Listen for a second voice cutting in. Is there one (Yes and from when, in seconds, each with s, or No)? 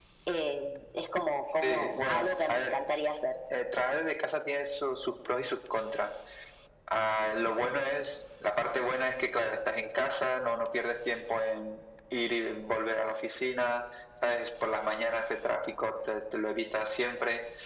Yes, from 1.6 s